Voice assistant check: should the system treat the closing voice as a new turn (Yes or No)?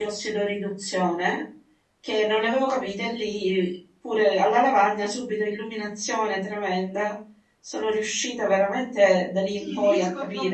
Yes